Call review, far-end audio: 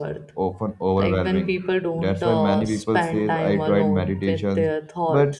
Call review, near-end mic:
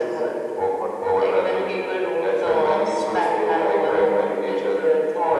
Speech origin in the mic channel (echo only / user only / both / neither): echo only